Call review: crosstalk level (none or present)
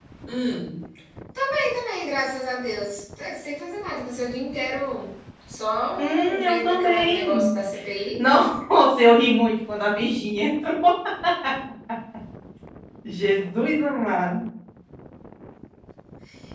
present